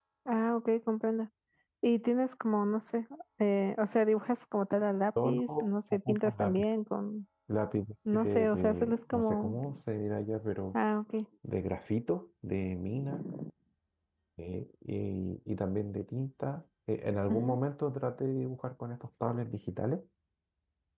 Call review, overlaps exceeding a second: present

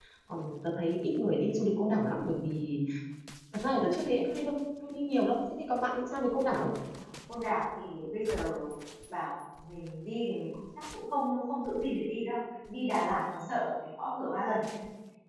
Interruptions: none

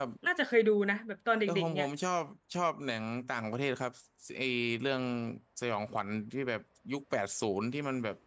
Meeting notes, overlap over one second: none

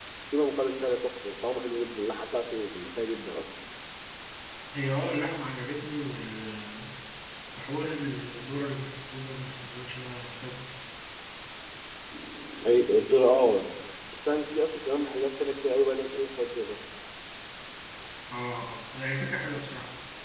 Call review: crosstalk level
none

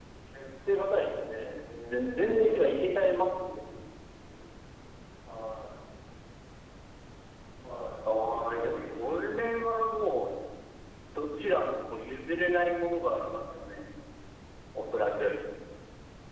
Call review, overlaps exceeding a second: present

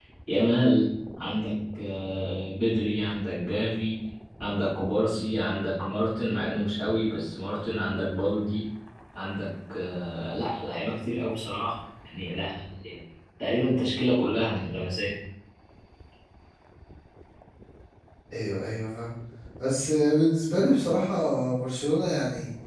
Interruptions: none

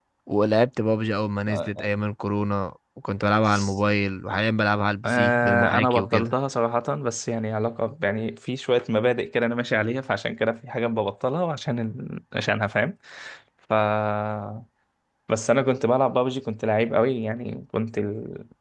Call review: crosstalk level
present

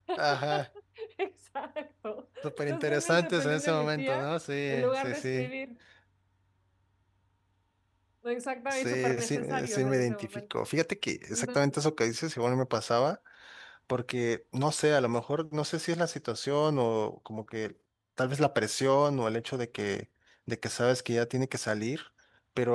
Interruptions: present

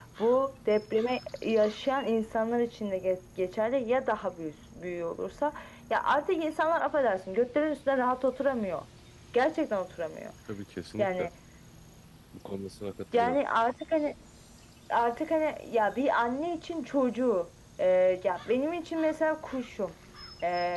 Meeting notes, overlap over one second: none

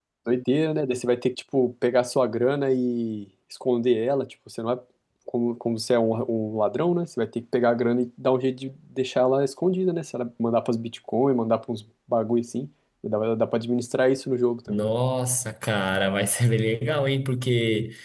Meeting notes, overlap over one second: none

